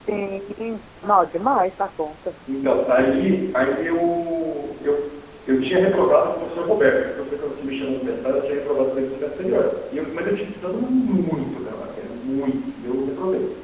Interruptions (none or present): none